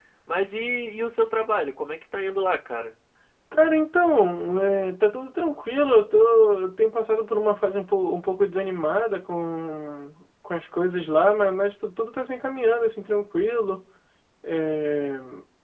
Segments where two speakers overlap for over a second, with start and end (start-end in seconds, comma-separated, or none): none